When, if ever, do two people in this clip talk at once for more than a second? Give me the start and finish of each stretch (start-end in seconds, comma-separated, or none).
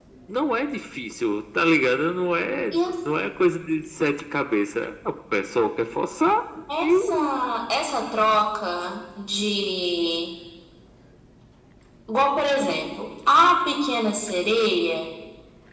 none